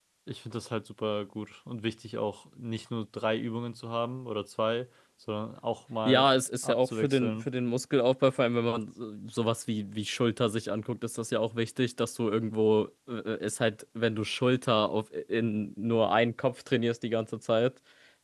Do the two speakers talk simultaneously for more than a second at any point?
Yes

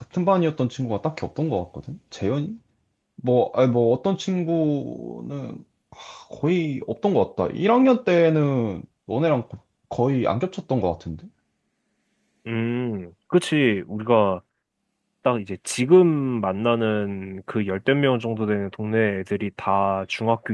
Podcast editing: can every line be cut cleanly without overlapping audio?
Yes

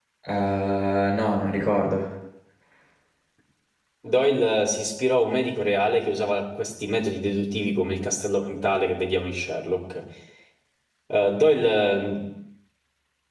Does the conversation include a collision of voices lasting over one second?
No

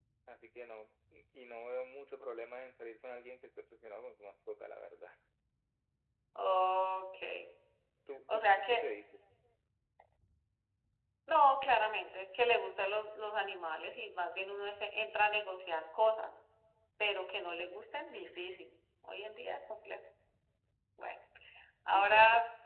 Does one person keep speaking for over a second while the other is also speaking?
No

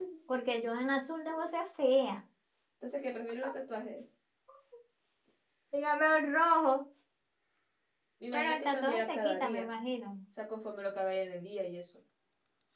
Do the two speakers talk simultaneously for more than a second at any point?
Yes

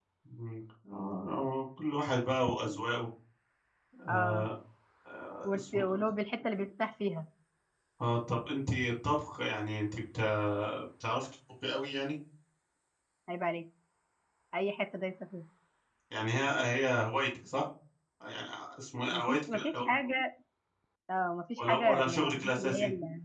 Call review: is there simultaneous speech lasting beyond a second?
Yes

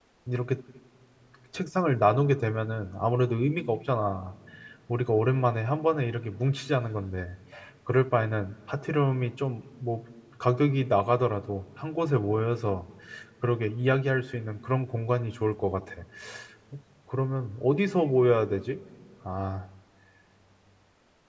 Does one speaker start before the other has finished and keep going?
No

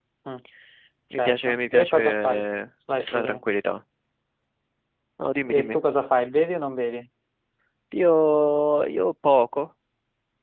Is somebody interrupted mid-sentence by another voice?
Yes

